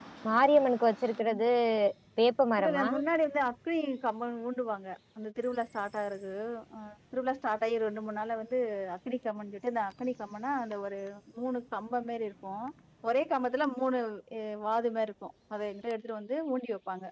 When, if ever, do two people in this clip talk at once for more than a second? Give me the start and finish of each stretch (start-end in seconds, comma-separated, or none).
none